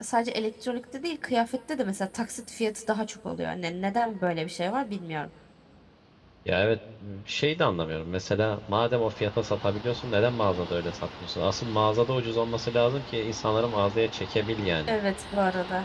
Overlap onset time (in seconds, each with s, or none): none